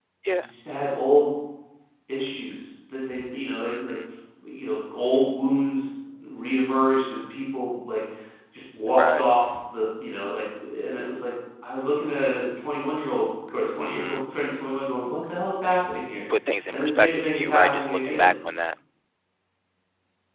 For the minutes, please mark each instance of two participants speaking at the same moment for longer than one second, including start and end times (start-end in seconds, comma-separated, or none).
16.7-18.3